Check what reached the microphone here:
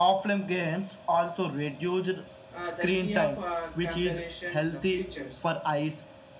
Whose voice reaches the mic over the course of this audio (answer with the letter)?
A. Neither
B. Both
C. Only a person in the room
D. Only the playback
B